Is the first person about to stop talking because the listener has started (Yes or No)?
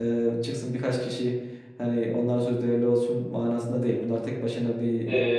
Yes